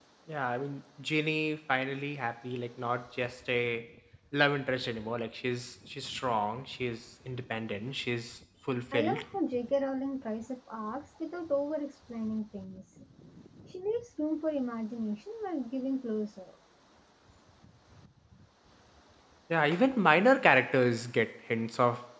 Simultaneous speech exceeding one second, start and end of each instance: none

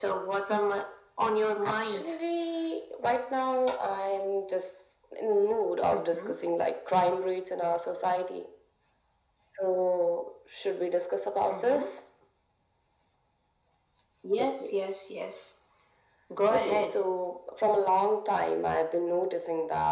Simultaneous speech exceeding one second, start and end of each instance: none

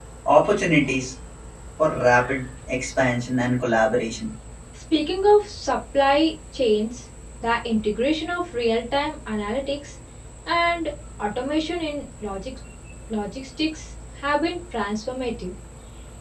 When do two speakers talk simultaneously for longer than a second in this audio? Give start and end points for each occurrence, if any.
none

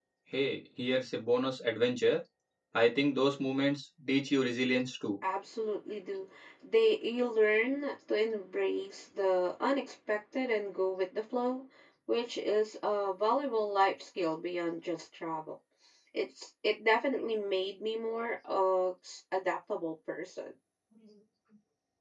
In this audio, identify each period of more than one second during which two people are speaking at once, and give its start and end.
none

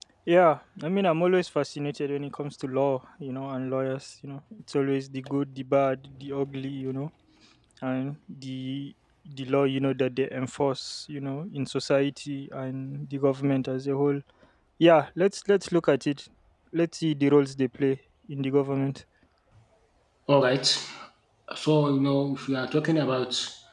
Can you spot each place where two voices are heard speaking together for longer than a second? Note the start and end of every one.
none

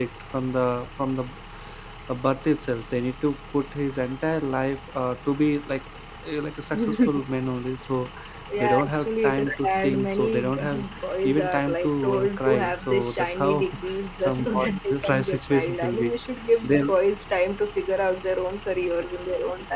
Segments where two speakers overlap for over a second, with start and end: 8.6-10.8, 11.2-16.1

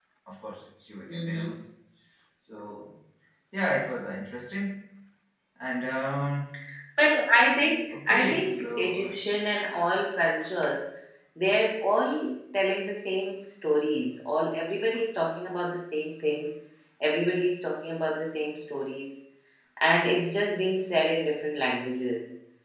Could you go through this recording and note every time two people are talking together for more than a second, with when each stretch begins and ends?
7.9-9.2

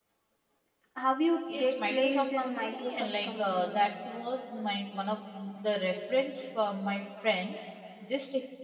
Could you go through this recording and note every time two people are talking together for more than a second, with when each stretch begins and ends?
1.5-3.8

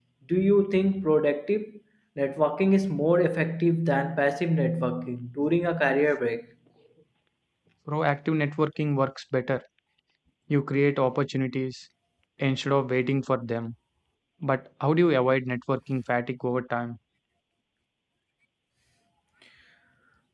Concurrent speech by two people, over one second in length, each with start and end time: none

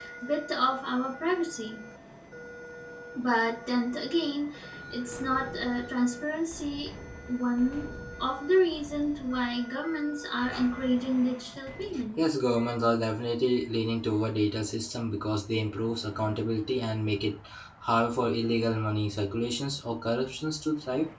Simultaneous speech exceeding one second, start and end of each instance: none

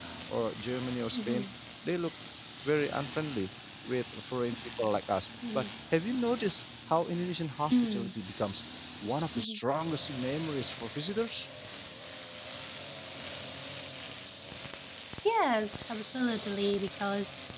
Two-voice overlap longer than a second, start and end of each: none

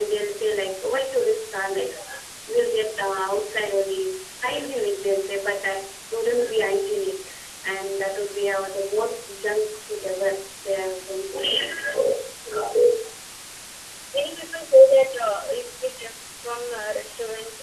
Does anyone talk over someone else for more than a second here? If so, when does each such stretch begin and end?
none

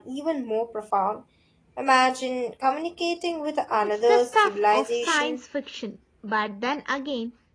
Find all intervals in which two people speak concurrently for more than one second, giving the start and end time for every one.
4.1-5.4

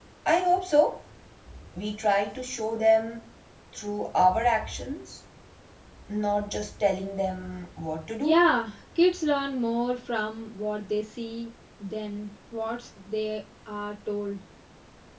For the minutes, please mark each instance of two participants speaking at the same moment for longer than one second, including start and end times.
none

